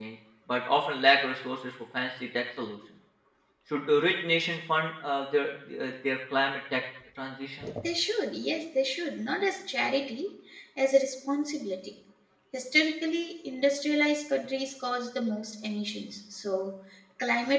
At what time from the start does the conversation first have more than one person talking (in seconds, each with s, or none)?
none